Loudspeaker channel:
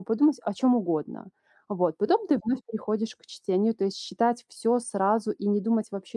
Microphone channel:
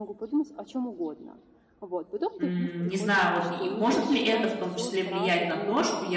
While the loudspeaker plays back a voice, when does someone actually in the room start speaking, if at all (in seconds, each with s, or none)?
2.4 s